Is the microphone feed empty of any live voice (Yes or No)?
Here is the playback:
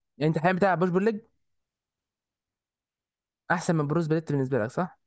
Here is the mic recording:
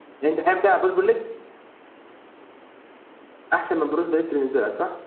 Yes